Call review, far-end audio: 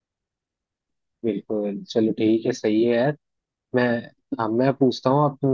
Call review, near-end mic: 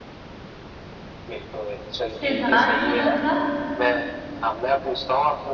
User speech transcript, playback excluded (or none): सिद्धार्थ मल्होत्रा